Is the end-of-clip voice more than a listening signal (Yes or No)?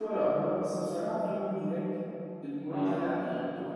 No